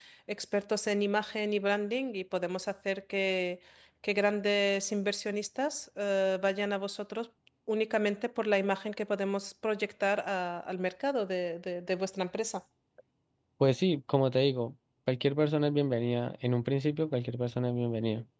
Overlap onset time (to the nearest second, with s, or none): none